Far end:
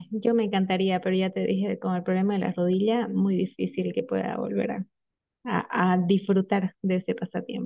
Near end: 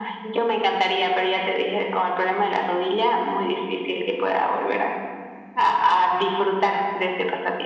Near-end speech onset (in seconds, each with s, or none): none